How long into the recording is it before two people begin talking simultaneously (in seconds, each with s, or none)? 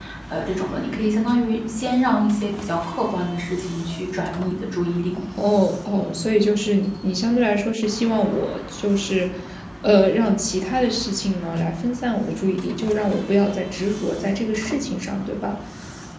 none